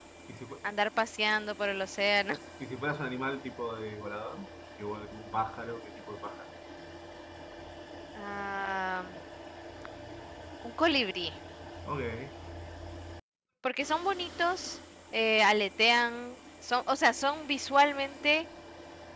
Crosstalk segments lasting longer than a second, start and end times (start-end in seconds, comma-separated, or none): none